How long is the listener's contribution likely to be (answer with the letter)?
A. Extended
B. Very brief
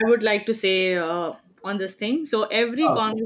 B